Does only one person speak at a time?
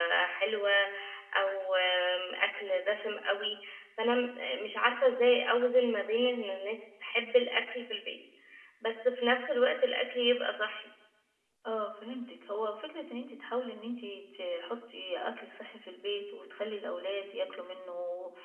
Yes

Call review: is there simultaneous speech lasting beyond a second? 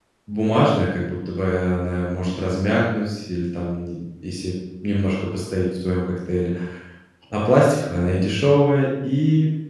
No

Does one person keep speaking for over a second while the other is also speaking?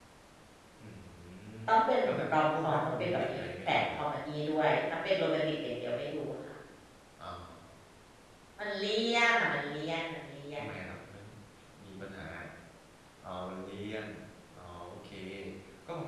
Yes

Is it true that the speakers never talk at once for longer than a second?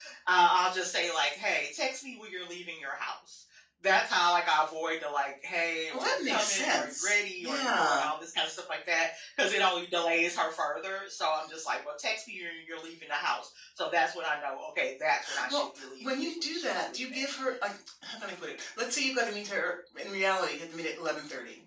No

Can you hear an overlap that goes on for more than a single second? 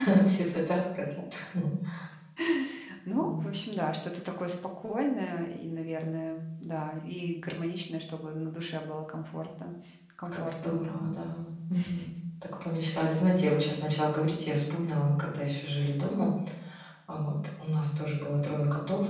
No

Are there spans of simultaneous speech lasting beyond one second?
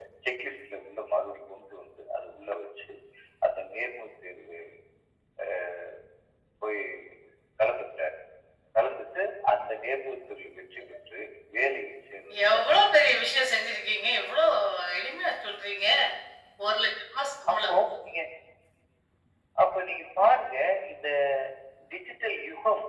No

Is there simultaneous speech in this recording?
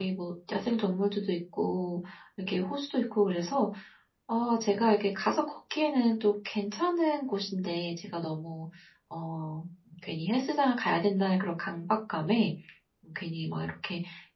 No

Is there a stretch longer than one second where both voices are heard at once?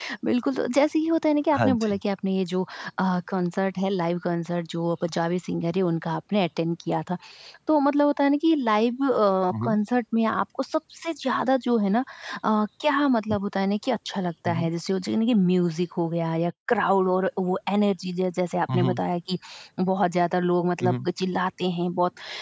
No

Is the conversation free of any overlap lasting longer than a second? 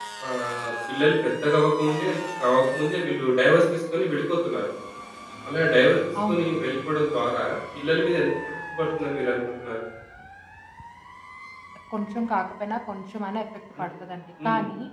Yes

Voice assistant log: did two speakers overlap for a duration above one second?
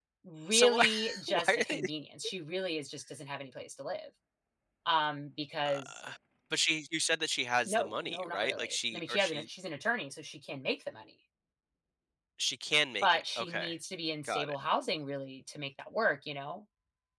Yes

